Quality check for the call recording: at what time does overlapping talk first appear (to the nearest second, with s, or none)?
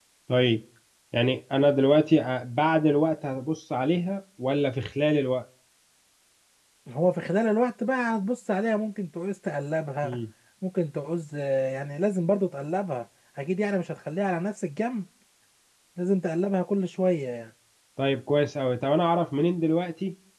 none